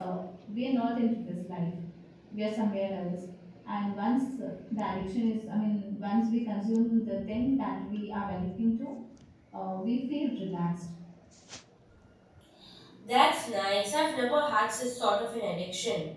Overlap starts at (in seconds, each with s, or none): none